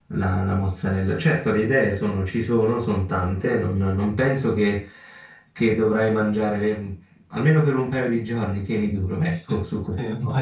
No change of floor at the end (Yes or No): No